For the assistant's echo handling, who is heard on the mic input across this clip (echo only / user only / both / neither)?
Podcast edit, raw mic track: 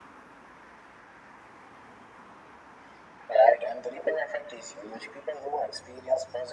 echo only